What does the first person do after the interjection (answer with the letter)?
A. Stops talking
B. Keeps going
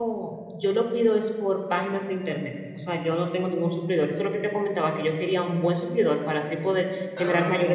B